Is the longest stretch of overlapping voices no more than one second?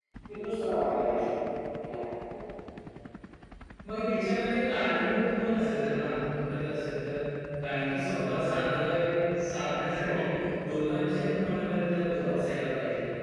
Yes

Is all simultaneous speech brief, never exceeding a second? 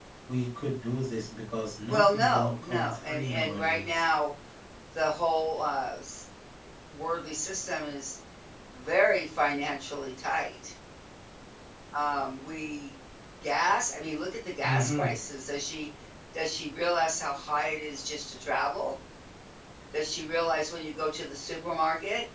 No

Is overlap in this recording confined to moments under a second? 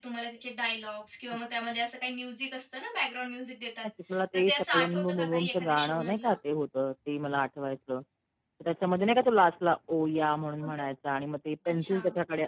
No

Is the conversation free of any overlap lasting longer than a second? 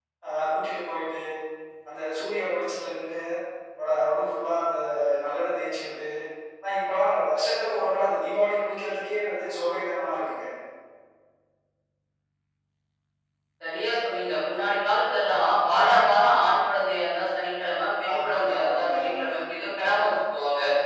No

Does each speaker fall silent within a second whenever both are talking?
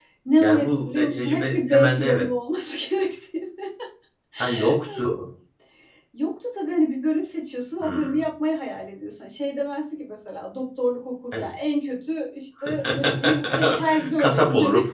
No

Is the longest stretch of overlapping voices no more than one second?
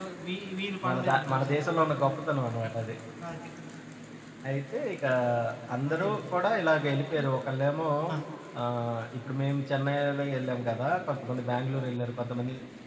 No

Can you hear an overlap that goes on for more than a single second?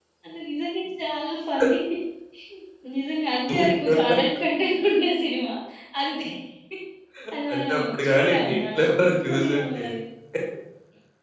Yes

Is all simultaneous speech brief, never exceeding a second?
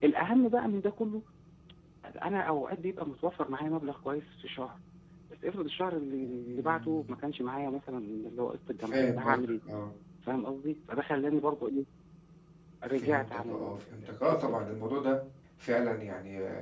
No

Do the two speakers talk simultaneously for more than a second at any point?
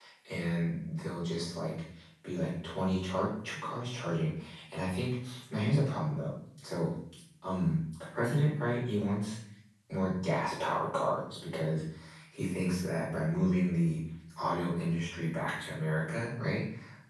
No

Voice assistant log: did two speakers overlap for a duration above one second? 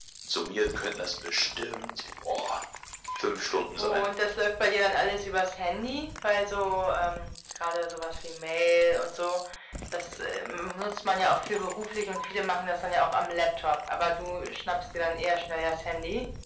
No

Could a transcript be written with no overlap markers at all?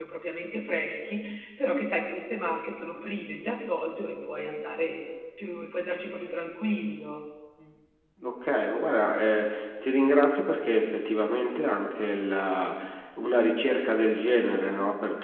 Yes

